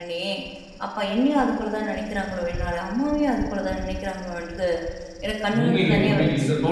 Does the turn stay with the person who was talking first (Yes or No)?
No